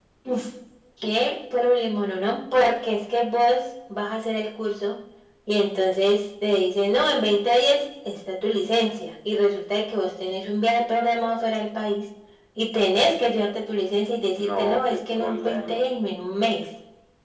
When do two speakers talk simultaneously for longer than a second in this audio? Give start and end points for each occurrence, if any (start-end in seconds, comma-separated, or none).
14.4-15.9